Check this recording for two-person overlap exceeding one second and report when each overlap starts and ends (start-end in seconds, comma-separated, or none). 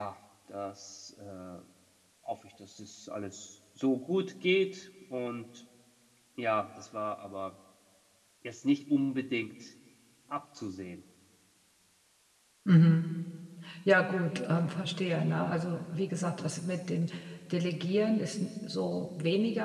none